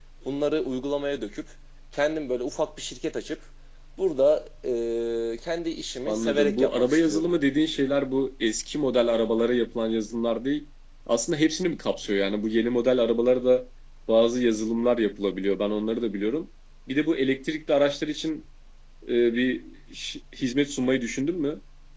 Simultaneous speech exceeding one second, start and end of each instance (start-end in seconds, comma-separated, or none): 6.0-7.3